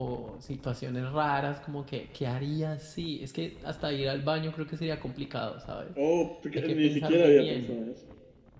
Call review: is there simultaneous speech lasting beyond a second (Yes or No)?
Yes